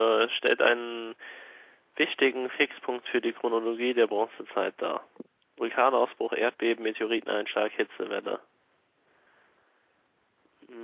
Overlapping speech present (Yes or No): No